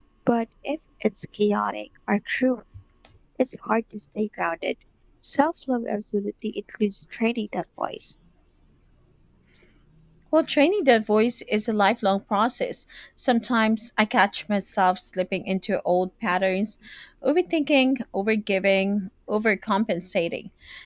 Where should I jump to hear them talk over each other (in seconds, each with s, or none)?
none